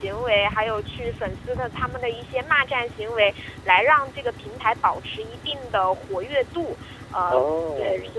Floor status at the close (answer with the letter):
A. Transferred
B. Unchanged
B